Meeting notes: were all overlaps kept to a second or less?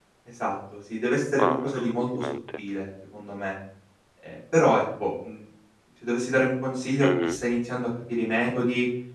No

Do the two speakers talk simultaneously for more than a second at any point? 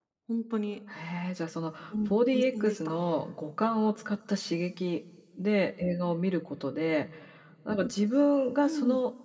Yes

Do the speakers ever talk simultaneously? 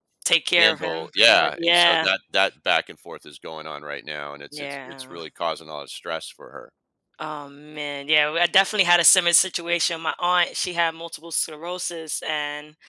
Yes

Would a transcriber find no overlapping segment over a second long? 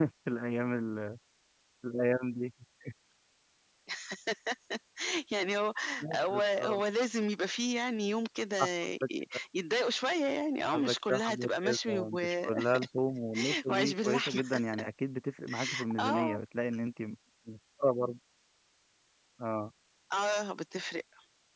No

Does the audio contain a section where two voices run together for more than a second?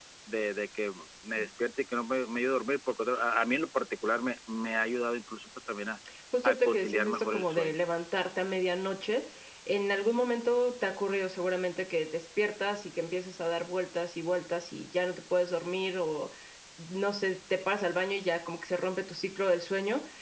Yes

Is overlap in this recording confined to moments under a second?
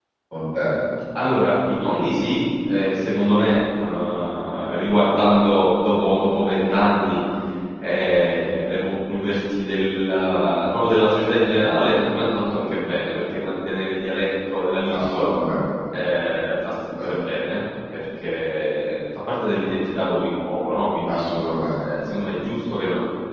Yes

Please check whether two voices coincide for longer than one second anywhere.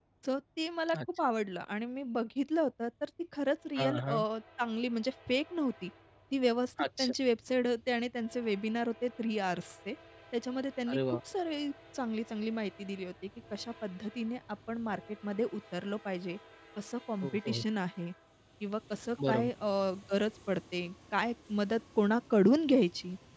No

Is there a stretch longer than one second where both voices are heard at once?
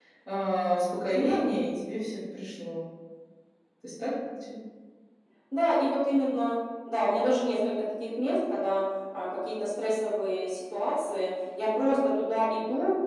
No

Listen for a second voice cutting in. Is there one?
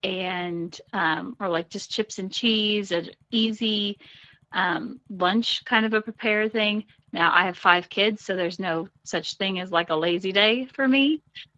No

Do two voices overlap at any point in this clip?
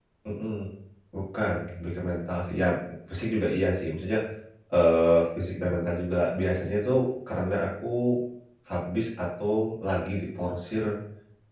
No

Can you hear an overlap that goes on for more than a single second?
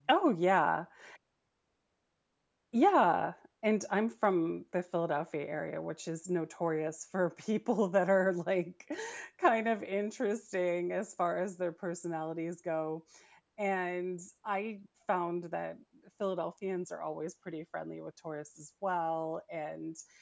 No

